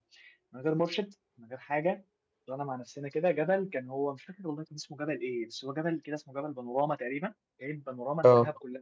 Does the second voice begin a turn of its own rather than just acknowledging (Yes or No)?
No